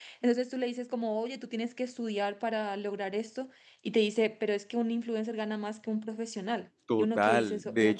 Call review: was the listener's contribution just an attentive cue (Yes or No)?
No